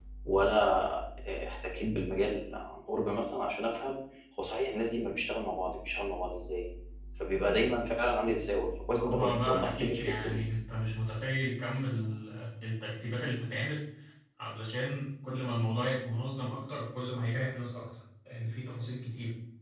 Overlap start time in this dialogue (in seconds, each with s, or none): 9.0 s